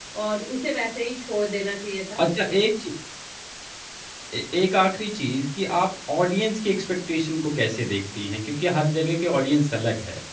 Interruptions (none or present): none